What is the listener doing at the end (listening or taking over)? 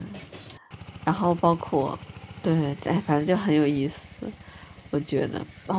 listening